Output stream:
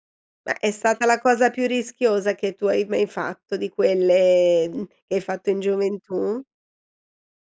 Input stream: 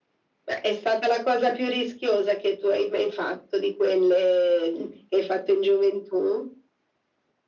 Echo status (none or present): present